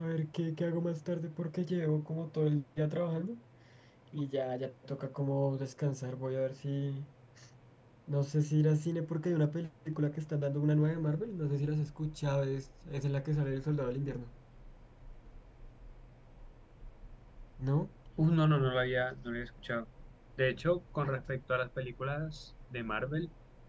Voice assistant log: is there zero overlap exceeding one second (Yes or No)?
Yes